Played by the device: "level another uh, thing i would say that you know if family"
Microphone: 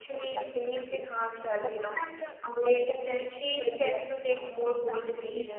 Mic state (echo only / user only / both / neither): both